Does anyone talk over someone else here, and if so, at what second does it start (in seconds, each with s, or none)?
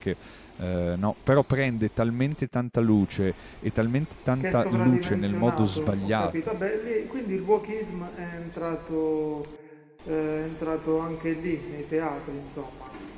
4.4 s